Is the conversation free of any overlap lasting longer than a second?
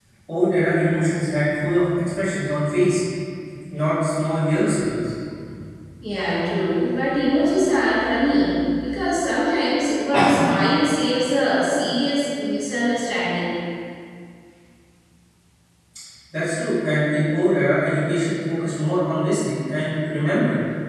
Yes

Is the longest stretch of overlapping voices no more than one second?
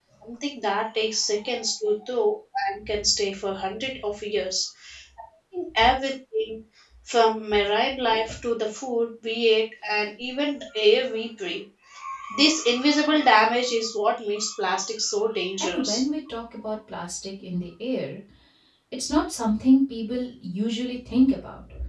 Yes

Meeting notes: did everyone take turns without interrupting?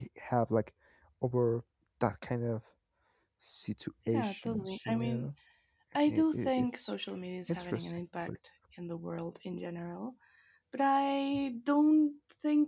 No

